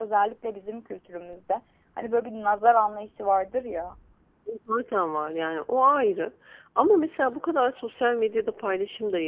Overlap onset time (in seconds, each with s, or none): none